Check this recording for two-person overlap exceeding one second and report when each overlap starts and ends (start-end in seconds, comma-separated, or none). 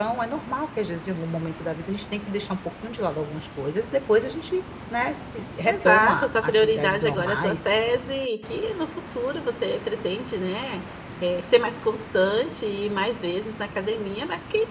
5.6-7.6